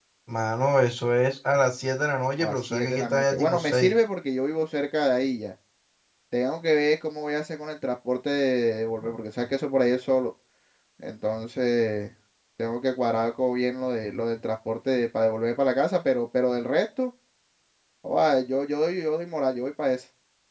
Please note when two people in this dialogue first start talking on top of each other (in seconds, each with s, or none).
2.4 s